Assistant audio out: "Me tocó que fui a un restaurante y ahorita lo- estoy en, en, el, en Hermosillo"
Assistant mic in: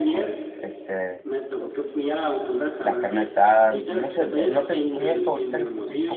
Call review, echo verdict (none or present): present